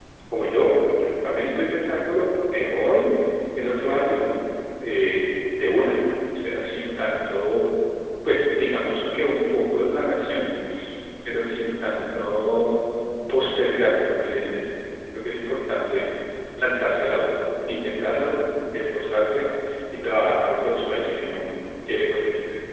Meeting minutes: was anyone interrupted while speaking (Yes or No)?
No